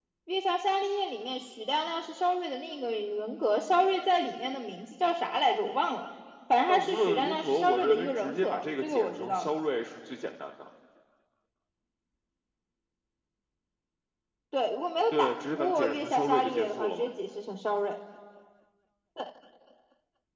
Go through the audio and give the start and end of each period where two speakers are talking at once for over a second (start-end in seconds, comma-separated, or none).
6.7-9.6, 15.2-17.1